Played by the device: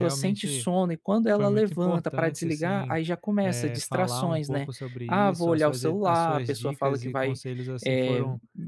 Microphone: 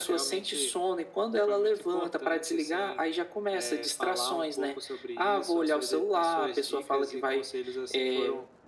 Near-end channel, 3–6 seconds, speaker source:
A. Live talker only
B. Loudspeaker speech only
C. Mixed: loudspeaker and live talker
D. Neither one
B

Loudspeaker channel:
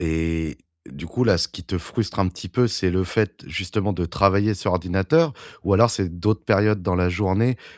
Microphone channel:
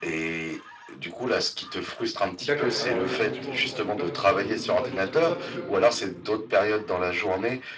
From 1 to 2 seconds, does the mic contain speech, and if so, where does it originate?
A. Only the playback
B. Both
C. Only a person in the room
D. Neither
A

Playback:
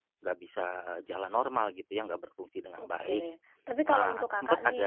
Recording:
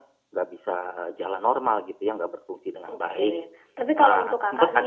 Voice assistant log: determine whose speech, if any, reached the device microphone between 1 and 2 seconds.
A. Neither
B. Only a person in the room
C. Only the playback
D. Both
C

